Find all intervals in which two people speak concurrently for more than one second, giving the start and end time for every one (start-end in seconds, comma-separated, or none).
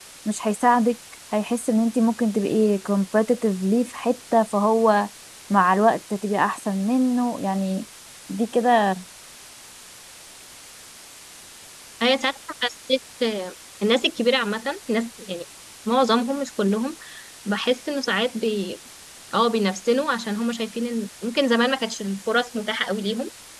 none